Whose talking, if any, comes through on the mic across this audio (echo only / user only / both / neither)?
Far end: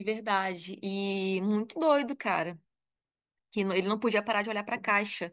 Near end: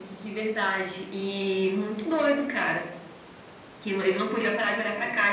echo only